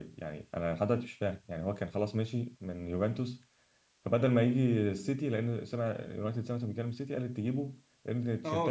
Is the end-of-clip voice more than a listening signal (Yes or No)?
Yes